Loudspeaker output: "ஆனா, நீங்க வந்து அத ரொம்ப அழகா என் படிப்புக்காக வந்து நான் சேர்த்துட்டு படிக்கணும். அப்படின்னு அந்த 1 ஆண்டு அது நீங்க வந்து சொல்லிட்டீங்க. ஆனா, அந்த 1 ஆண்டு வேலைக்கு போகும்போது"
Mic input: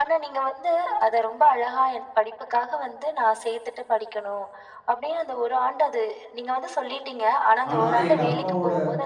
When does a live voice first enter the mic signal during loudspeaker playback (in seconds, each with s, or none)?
7.7 s